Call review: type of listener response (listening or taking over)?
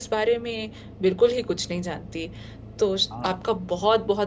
listening